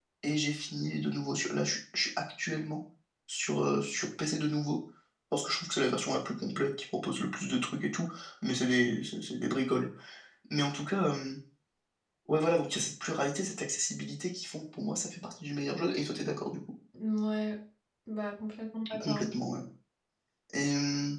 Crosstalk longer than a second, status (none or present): none